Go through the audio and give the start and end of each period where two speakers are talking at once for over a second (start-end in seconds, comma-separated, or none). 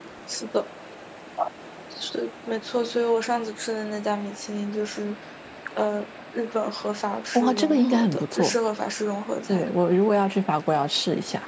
7.3-8.6